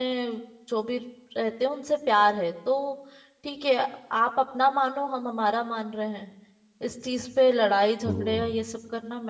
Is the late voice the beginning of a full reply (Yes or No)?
No